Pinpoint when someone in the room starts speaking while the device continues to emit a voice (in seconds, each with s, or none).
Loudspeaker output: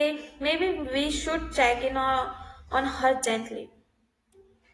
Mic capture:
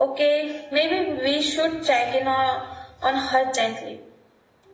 none